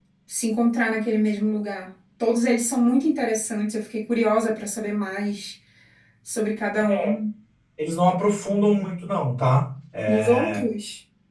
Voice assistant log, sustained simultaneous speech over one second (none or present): none